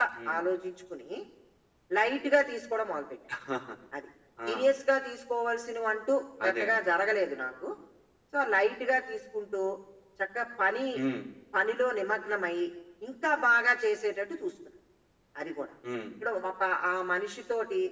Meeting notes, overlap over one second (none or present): none